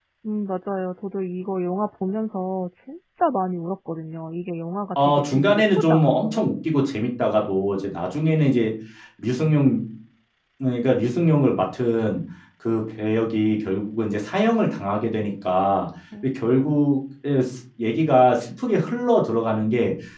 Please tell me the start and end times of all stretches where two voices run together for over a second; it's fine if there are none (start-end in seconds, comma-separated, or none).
5.0-6.5